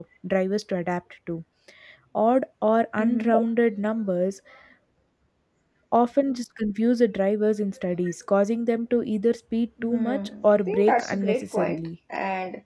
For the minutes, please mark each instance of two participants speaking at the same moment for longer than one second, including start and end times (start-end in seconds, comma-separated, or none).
9.8-11.9